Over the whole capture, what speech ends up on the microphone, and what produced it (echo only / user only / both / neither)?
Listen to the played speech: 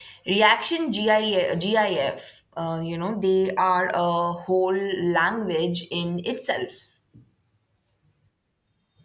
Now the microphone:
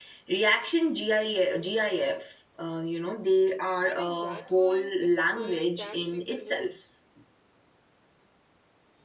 both